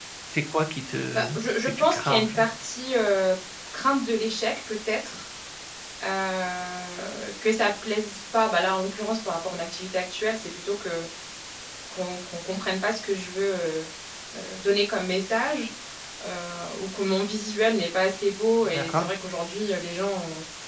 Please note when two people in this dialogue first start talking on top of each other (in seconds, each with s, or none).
1.1 s